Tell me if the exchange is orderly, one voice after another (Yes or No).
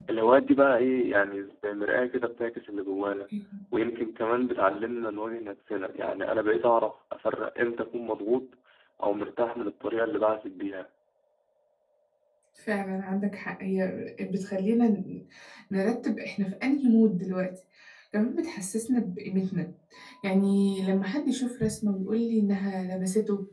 Yes